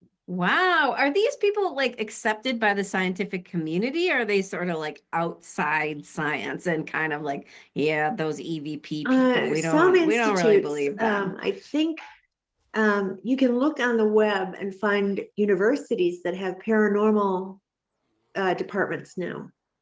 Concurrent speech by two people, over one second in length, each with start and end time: 9.1-11.3

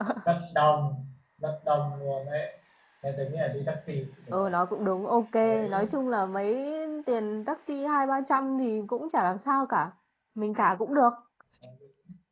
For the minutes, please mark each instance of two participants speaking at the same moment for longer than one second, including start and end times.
none

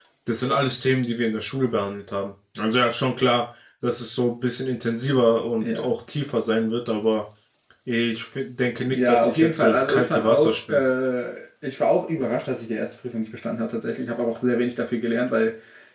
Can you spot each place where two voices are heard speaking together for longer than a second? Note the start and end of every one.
8.9-10.8

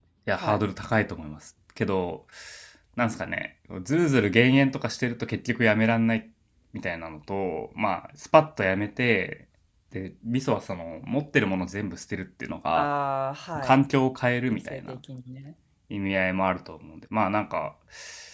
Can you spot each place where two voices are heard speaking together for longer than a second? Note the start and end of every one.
none

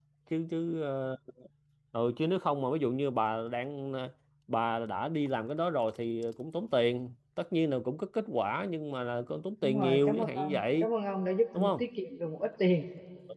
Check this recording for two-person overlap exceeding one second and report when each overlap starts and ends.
9.6-10.9

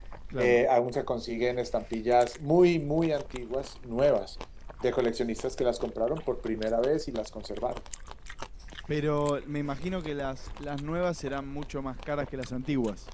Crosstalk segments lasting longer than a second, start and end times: none

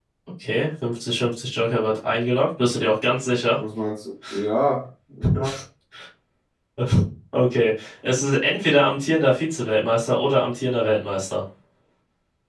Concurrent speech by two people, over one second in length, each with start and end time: none

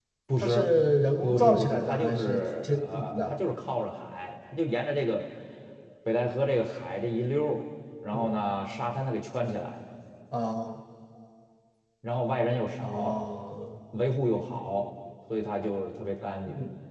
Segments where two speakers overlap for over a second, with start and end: 1.2-3.3

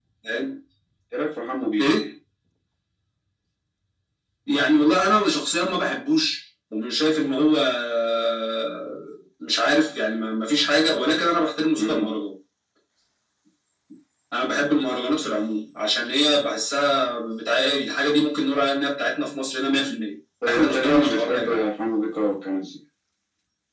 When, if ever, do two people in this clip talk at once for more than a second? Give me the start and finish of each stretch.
20.4-21.7

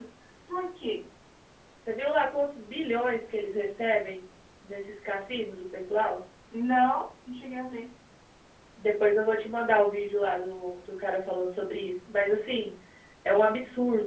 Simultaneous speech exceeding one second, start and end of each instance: none

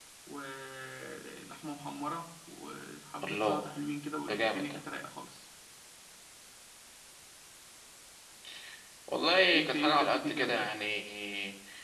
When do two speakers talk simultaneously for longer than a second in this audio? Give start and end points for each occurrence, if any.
9.5-10.7

